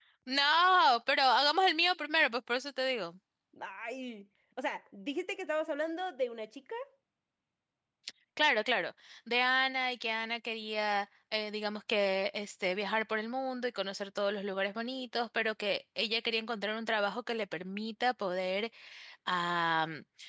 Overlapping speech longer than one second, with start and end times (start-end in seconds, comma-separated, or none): none